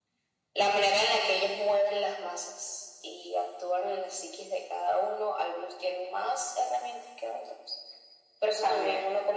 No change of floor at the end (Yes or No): Yes